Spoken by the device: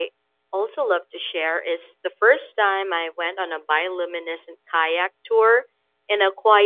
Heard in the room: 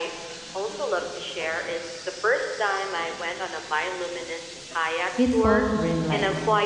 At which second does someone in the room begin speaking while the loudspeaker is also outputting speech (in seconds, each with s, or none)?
5.2 s